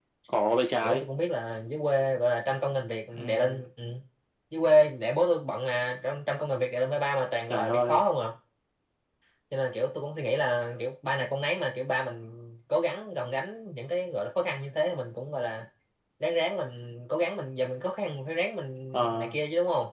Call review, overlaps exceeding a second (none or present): none